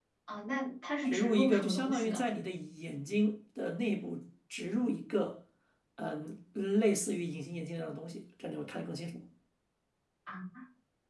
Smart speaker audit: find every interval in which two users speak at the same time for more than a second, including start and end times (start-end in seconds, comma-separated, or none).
1.1-2.3